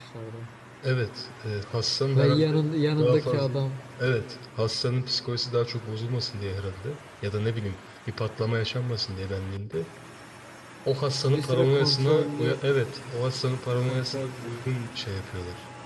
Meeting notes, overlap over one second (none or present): present